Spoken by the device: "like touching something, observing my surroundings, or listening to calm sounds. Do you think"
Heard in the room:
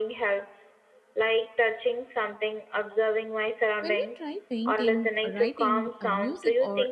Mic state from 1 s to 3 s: echo only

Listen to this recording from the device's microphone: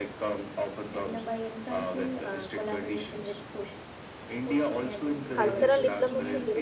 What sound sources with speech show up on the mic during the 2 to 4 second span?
echo only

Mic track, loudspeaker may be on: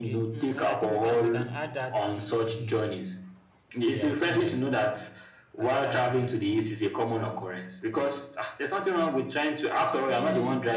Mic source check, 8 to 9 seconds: echo only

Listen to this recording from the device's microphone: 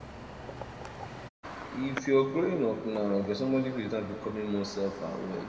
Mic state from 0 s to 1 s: neither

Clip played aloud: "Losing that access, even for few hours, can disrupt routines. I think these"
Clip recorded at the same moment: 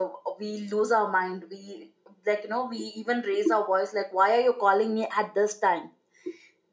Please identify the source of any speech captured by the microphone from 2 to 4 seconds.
user only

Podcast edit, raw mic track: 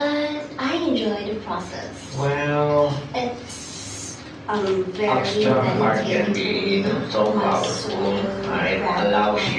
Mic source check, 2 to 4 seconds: echo only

